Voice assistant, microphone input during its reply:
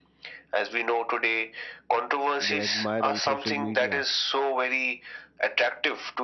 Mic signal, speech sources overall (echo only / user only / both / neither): both